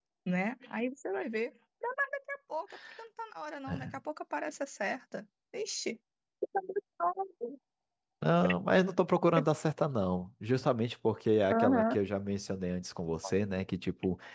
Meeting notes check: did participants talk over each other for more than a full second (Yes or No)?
No